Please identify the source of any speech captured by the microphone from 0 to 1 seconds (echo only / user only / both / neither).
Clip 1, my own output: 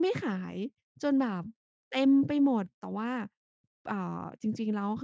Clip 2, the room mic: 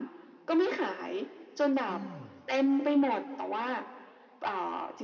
echo only